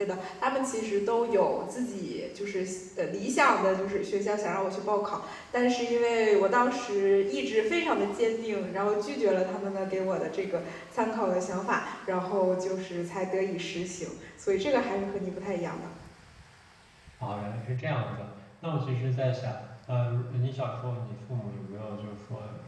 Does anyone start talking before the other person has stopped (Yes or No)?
No